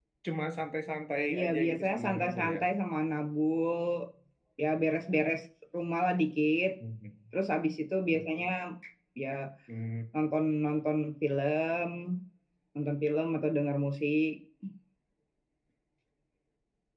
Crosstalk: present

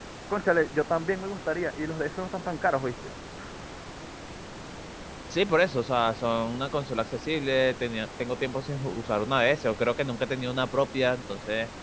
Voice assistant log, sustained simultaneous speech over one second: none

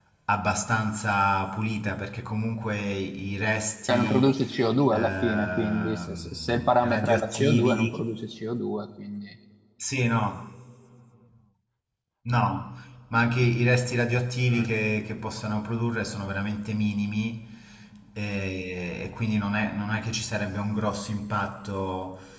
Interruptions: present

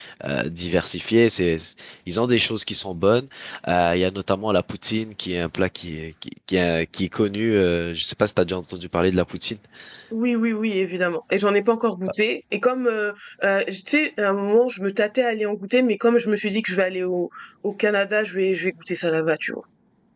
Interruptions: none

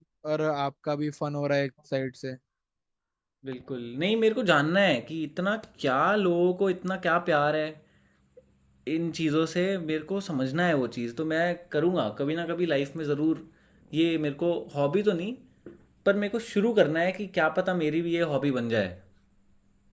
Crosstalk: none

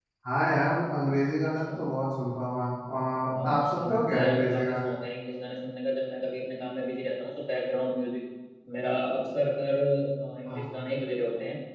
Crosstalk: present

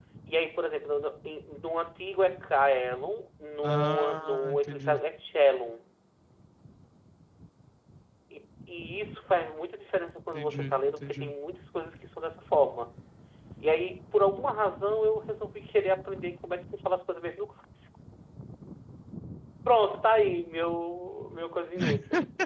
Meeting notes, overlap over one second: present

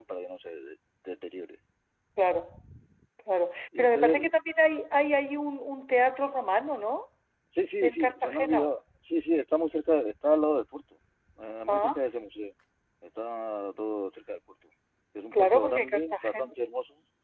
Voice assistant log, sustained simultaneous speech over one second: present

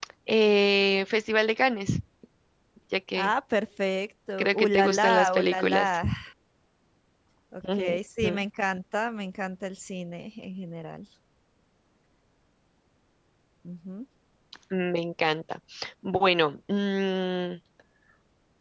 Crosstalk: present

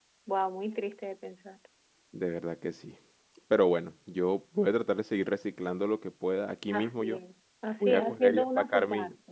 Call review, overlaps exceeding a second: present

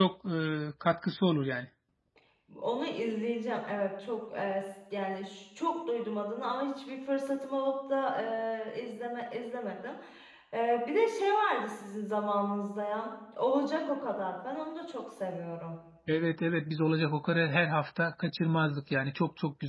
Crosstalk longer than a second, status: none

